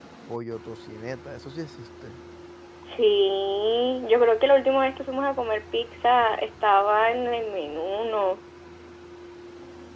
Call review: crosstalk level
none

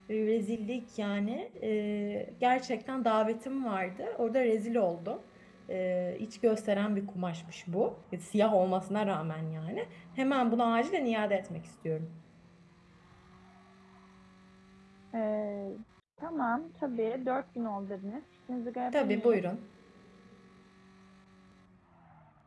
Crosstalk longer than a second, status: none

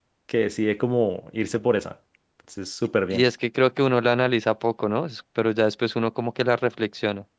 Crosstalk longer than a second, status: none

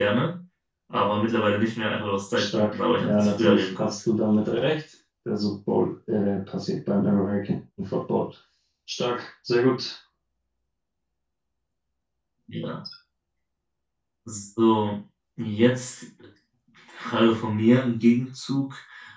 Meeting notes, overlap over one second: present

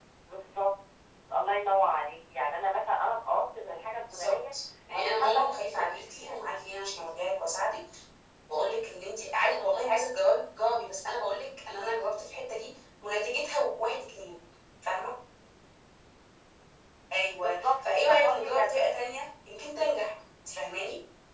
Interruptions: present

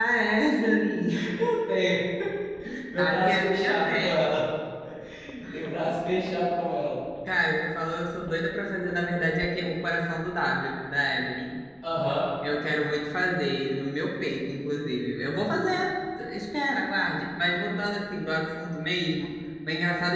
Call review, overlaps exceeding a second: present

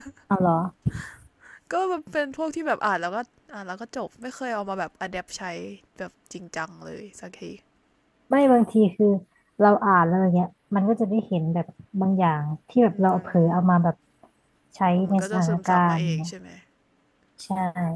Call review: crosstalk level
present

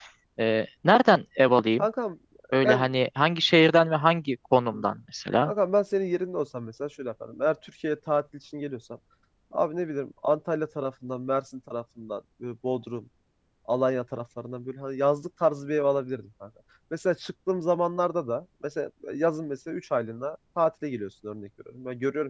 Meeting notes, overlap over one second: none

